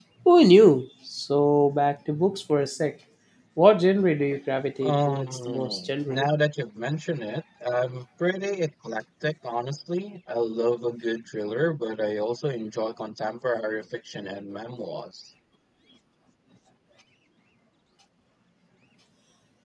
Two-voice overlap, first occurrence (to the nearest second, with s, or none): 5 s